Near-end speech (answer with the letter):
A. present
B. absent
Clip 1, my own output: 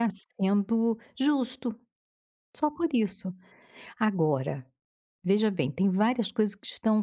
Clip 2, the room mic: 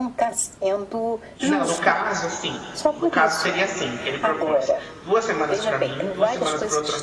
A